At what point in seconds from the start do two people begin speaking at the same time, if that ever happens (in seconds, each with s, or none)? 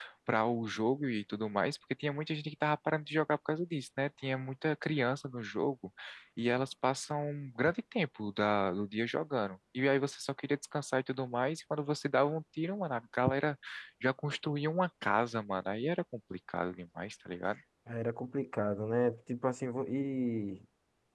none